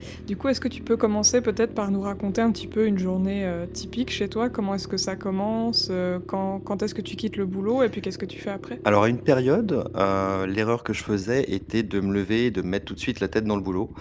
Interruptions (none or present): none